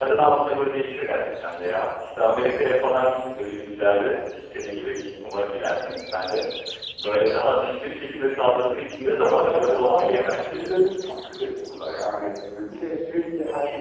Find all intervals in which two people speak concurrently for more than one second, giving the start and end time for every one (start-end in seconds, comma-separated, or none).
9.0-10.6